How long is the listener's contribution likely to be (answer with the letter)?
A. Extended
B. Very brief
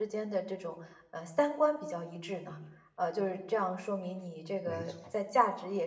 B